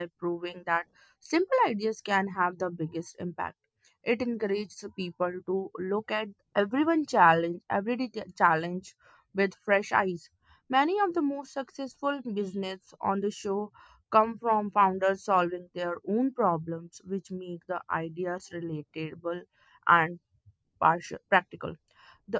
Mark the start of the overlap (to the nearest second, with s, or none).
none